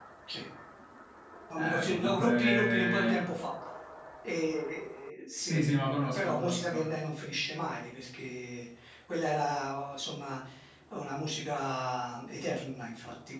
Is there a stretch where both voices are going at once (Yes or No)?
Yes